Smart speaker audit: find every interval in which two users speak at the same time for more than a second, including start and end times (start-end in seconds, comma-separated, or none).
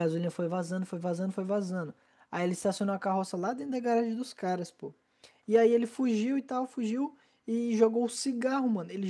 none